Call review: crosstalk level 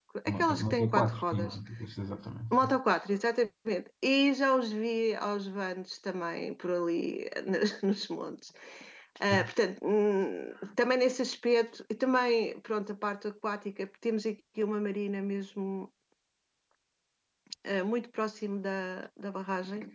present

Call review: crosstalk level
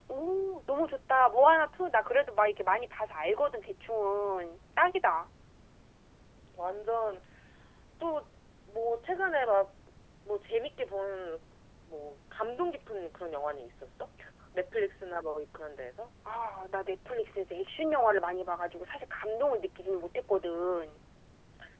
none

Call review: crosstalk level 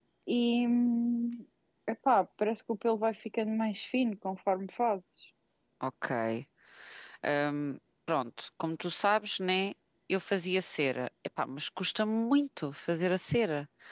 none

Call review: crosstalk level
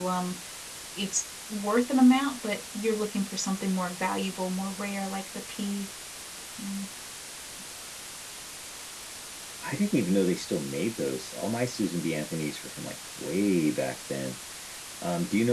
none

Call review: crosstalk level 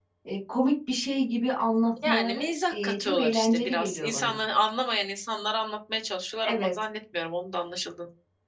present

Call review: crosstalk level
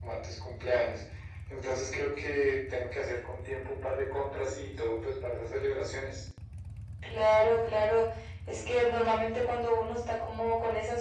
none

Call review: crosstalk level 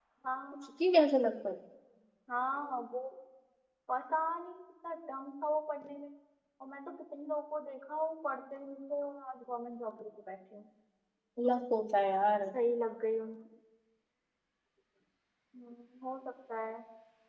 none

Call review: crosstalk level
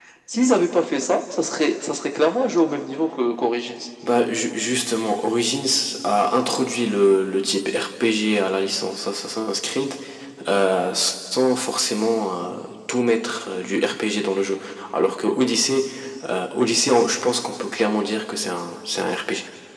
none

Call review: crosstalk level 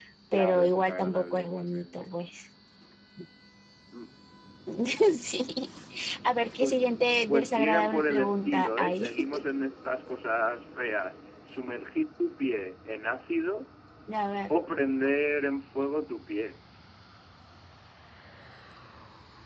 present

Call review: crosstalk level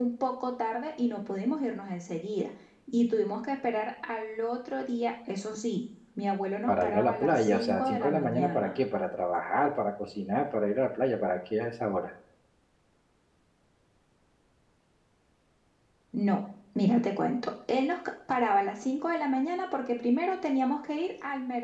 present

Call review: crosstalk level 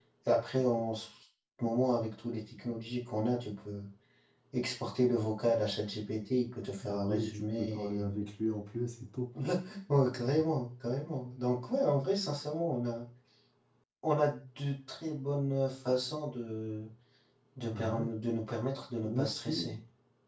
present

